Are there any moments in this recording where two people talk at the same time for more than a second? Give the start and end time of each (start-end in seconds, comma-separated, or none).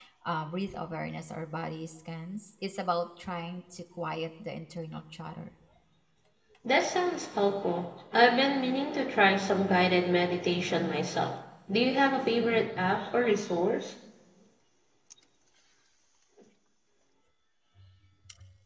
none